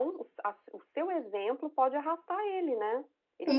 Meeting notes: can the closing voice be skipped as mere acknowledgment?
No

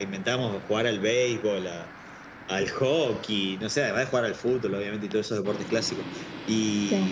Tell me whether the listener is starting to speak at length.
No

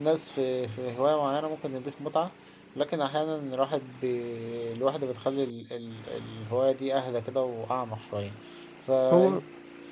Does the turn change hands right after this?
No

